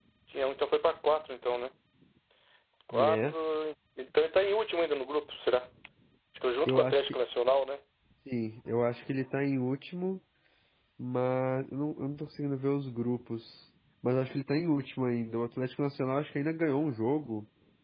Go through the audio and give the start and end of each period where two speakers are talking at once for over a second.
none

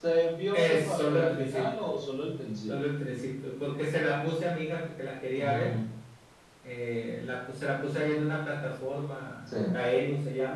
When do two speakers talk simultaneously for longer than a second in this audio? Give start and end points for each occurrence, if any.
0.5-1.8

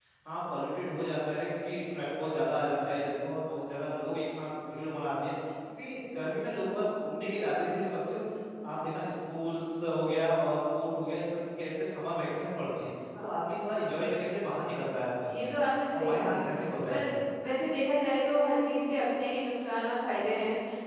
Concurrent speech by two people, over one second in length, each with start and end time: none

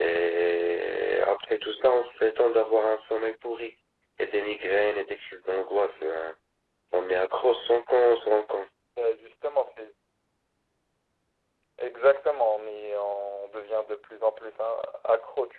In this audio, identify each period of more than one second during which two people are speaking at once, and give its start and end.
none

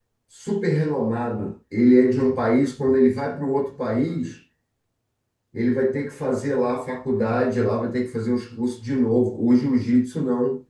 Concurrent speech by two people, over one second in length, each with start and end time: none

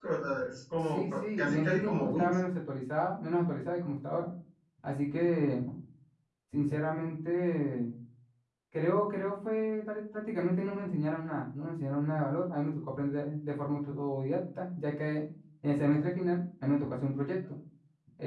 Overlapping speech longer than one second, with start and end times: 0.9-2.2

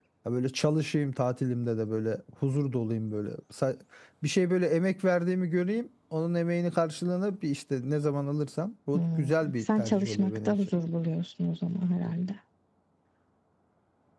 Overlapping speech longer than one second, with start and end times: 8.9-10.6

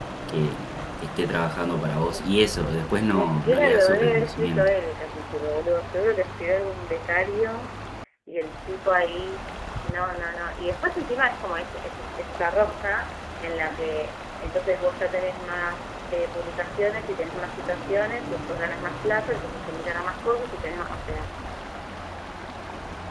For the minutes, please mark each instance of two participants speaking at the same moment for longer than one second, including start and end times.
3.1-4.7

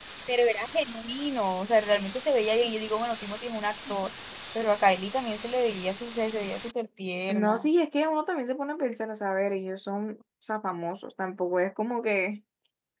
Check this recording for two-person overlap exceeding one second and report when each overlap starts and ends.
none

